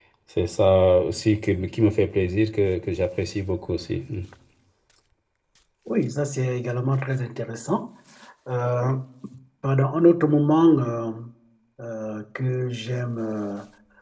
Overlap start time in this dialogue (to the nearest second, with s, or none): none